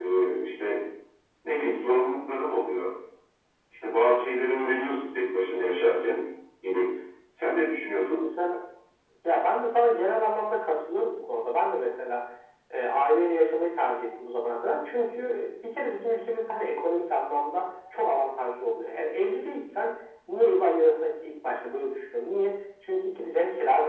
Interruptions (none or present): none